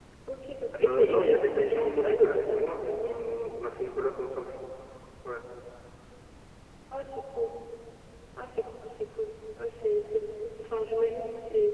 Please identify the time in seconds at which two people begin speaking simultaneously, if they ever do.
0.8 s

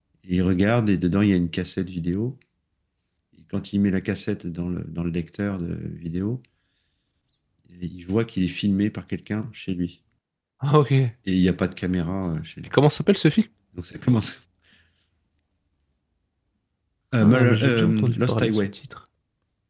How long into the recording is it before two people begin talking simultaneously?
17.2 s

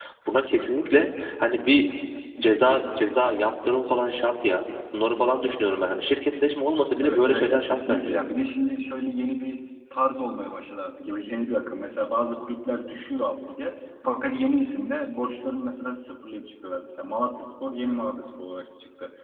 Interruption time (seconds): 7.0 s

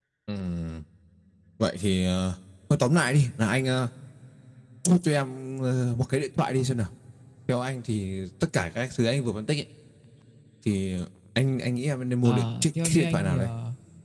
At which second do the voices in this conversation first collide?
12.2 s

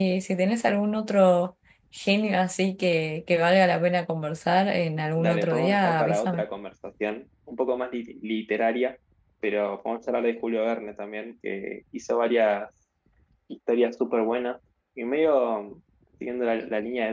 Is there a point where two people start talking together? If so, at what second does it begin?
5.2 s

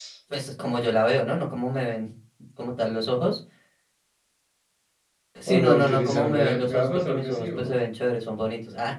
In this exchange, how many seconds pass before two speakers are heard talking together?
5.5 s

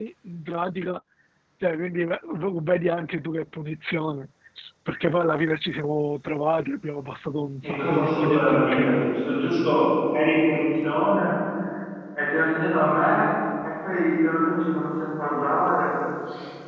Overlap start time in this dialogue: 7.6 s

